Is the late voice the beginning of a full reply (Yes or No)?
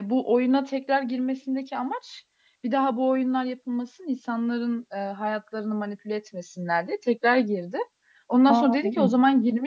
No